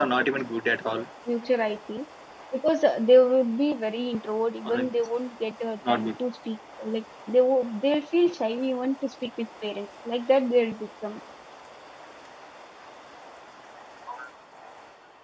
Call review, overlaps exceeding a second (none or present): none